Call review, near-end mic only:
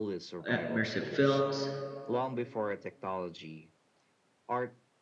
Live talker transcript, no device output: uh, immersive films,

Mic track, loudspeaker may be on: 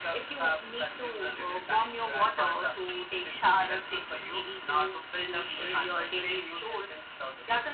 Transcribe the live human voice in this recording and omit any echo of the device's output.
none

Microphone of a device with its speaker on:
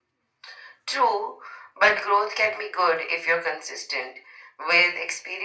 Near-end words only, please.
none

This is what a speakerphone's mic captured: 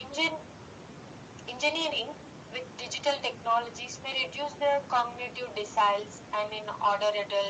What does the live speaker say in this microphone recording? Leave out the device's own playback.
none

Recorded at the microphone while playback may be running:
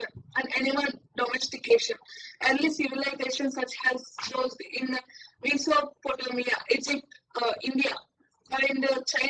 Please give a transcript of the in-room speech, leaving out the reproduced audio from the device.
none

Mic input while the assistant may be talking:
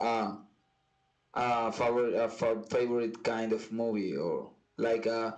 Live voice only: none

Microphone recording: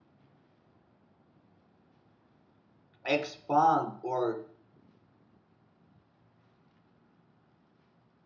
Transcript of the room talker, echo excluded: expand, or

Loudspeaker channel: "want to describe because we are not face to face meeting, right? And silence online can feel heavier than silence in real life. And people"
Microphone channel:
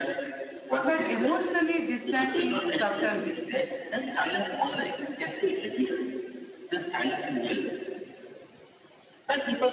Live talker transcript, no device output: but emotionally distant in subtle ways.

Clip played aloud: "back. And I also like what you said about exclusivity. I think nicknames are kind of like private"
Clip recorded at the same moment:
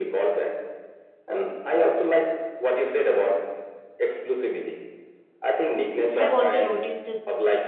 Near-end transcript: I have also noticed

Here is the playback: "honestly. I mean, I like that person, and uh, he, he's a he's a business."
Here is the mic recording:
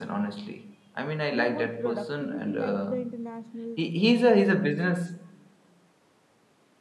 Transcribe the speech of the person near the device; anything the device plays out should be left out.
They want productivity like the international

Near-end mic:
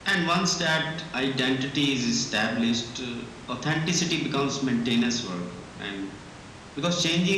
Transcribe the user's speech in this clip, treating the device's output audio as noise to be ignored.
none

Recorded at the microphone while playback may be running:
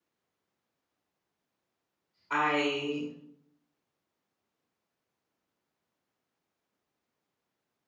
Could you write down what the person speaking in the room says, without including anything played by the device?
I

